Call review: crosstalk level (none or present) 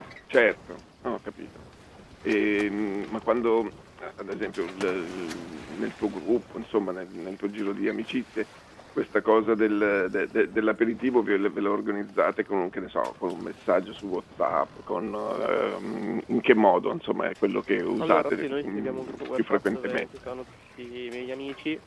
present